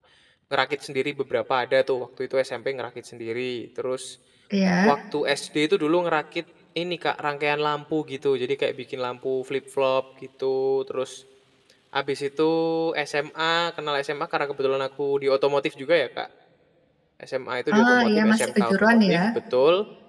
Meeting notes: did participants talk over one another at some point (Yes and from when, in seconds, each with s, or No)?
Yes, from 17.8 s